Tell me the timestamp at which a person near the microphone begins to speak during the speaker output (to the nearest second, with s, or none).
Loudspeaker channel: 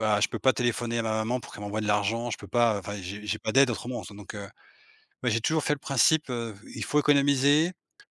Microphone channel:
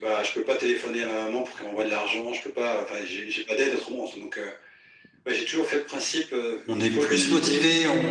7 s